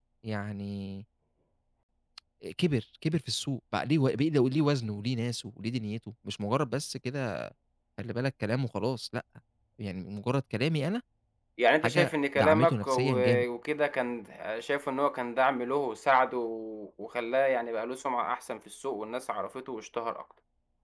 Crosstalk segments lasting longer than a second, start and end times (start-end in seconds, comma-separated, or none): 11.8-13.4